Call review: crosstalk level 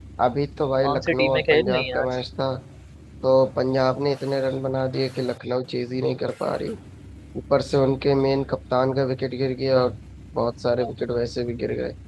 present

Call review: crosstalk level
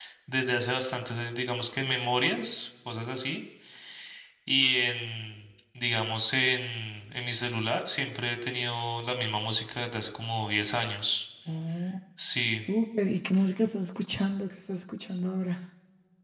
none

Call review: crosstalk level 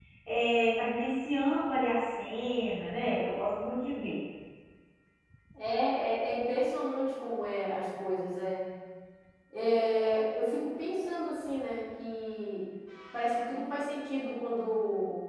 none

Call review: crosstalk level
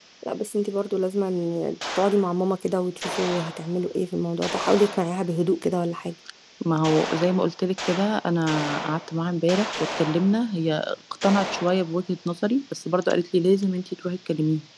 none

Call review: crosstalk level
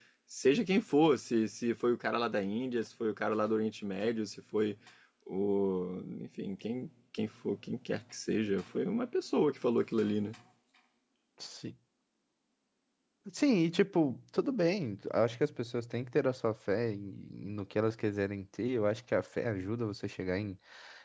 none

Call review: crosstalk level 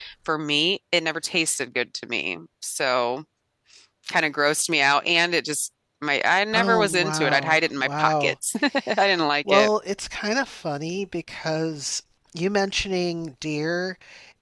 present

